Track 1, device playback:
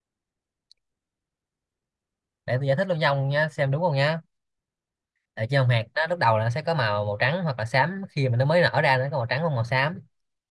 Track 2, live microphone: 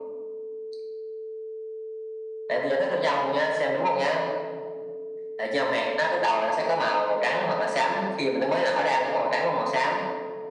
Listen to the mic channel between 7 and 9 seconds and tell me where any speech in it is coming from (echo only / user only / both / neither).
echo only